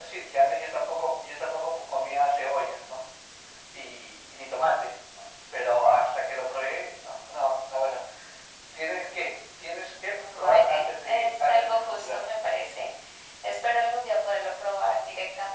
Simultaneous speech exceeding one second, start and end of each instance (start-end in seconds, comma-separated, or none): 10.4-12.2